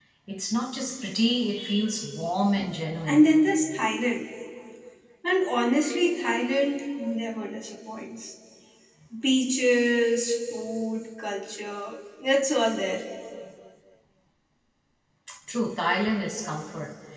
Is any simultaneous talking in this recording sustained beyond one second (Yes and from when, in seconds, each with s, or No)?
No